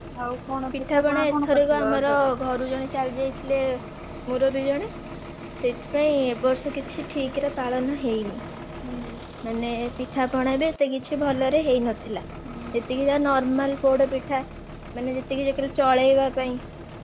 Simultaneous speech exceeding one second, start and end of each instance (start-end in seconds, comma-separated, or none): 0.7-2.3